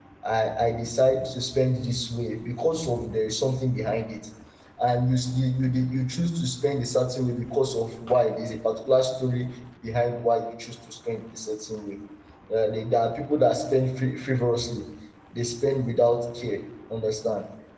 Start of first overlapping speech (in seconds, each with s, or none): none